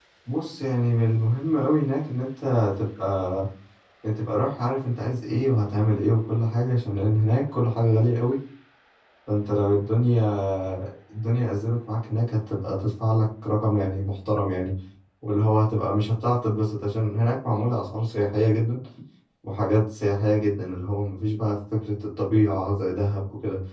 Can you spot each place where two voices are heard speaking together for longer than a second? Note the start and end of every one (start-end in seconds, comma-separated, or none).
none